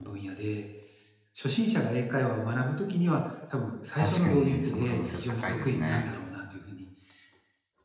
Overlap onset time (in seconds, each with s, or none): 4.0 s